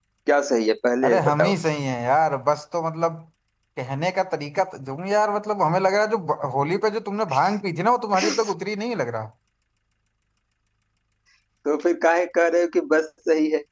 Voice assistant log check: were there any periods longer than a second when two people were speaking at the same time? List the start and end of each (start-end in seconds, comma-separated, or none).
none